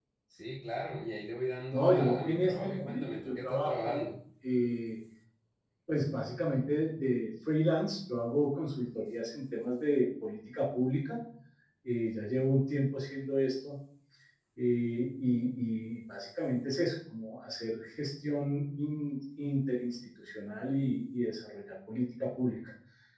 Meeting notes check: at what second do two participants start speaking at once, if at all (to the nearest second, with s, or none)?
2 s